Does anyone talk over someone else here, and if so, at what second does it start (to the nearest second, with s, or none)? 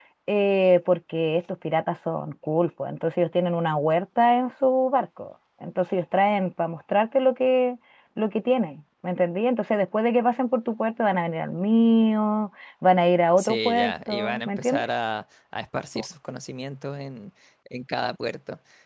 13 s